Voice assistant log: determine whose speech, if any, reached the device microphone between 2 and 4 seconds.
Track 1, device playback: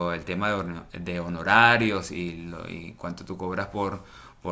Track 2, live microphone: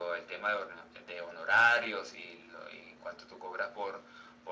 echo only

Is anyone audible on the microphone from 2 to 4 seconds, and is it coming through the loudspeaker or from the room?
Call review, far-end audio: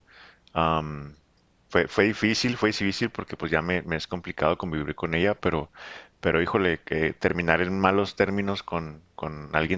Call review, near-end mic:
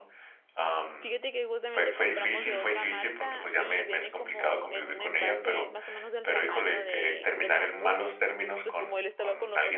both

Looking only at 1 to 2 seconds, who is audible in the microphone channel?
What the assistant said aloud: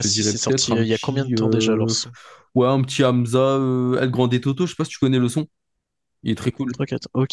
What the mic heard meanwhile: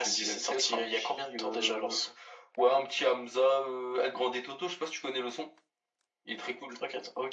echo only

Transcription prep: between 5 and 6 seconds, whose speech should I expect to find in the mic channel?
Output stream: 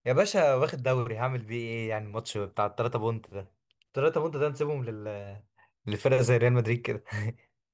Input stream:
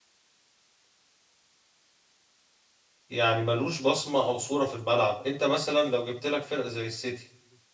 user only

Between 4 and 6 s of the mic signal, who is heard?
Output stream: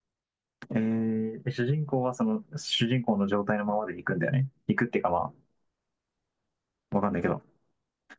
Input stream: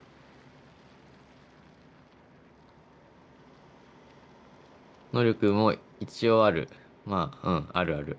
user only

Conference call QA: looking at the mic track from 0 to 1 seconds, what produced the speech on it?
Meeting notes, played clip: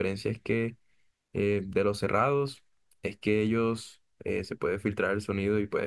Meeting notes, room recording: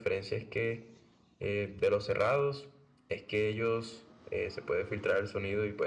echo only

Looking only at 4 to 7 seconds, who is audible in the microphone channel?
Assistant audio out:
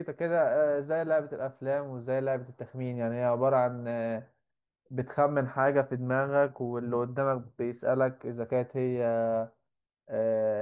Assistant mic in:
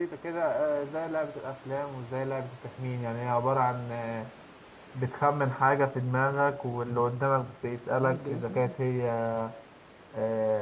echo only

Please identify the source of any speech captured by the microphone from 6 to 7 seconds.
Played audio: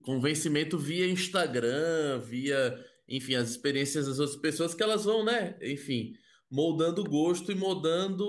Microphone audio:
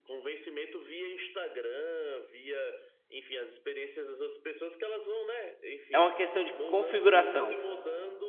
both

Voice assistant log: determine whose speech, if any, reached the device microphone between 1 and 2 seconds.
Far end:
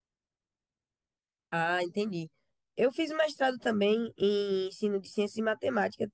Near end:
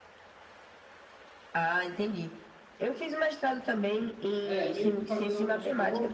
echo only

